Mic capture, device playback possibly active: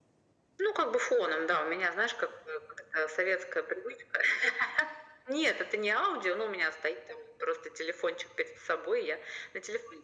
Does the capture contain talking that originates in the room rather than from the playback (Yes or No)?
No